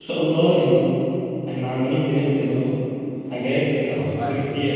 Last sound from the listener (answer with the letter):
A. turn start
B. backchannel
B